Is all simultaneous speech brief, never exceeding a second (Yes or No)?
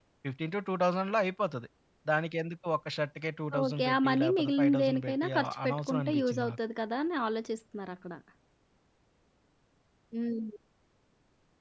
No